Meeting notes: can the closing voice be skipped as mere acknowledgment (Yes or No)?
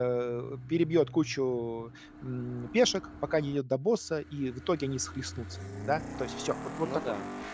Yes